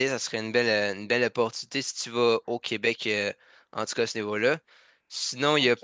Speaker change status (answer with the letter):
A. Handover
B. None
A